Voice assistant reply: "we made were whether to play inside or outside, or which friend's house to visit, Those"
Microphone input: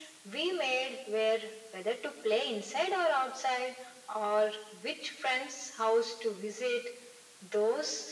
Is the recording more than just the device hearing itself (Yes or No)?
No